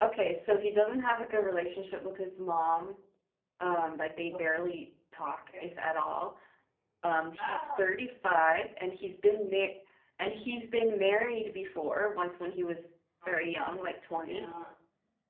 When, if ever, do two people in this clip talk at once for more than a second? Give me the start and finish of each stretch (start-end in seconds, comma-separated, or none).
none